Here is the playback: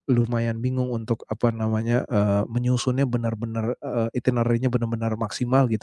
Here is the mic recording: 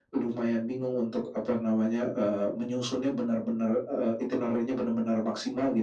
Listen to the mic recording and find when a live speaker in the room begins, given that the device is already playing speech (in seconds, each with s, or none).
none